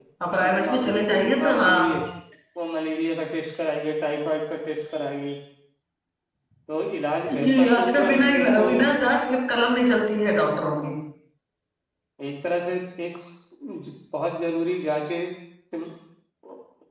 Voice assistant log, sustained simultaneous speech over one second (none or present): present